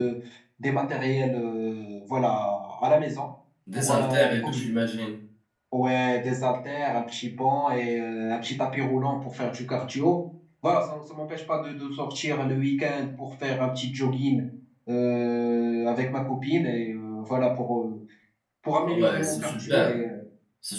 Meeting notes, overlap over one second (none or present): present